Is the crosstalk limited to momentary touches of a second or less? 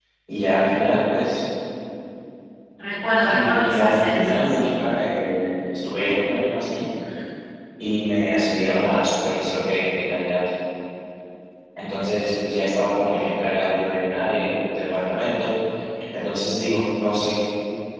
No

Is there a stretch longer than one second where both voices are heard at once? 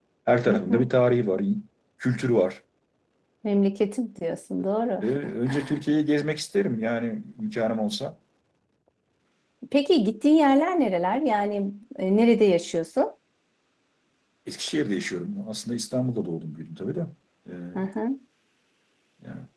No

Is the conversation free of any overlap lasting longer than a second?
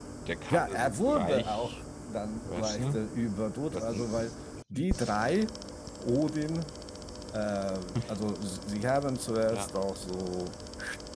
No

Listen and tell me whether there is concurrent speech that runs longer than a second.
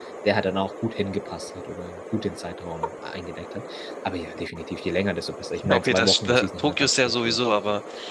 Yes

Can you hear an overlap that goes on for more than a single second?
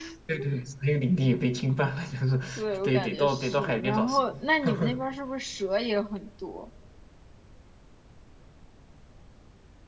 Yes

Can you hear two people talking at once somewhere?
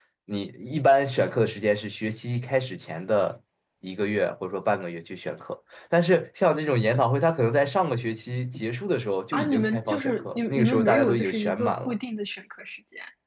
Yes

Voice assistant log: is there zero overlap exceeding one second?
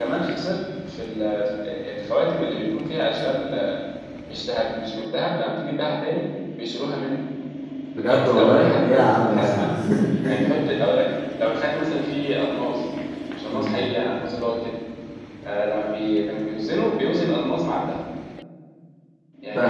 No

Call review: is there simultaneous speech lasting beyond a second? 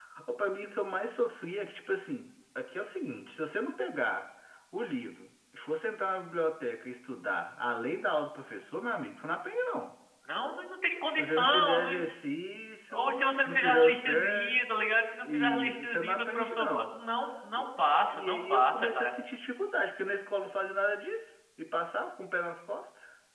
Yes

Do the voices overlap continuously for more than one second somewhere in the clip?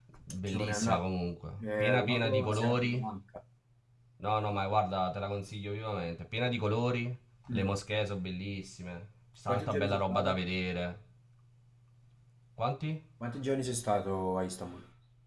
Yes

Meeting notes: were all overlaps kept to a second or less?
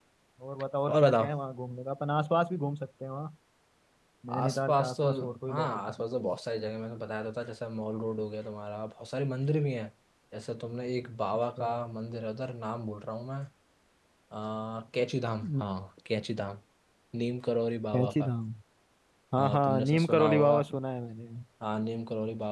No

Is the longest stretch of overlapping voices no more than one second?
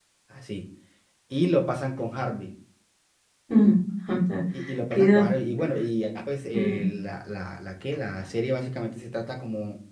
Yes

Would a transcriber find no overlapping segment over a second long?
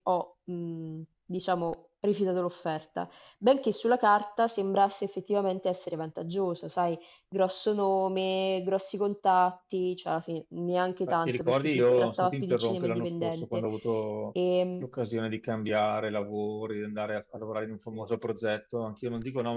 No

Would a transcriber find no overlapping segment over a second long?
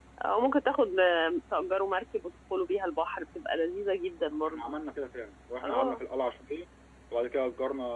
Yes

